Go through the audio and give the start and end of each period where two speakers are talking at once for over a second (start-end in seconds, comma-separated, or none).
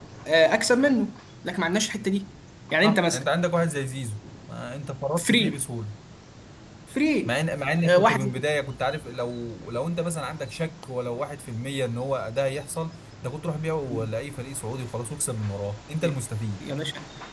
none